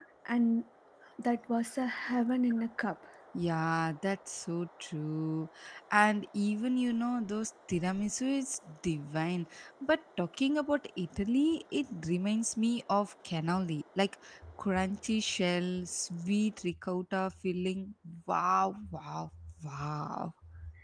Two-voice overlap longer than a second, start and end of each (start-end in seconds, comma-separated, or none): none